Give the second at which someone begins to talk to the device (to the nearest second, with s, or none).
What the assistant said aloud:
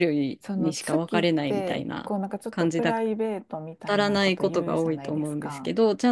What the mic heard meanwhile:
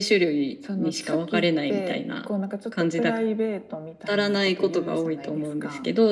none